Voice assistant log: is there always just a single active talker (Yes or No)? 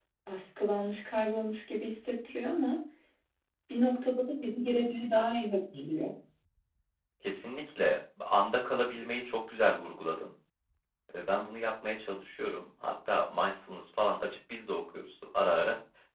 Yes